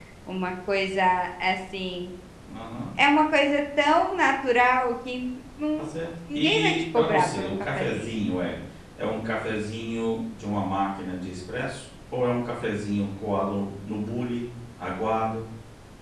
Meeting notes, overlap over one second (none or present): present